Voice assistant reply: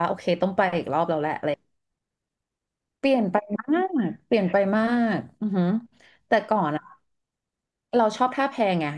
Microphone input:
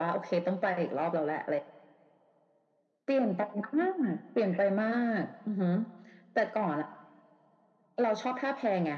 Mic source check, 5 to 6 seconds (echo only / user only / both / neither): echo only